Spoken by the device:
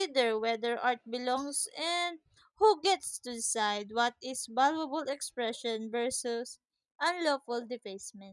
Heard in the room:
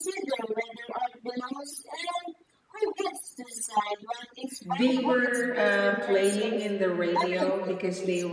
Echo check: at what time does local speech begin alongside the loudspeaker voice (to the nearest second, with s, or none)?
5 s